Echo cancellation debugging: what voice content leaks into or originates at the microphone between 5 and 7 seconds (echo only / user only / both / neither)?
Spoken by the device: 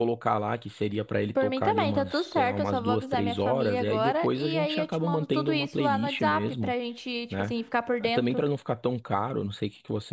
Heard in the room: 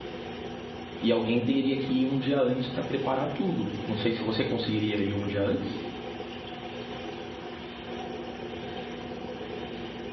user only